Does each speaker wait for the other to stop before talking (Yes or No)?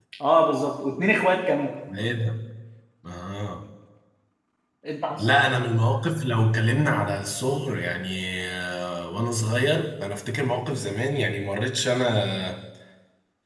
Yes